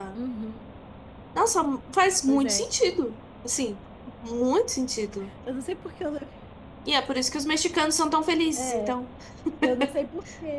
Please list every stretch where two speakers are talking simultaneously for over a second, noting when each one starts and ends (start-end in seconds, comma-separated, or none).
none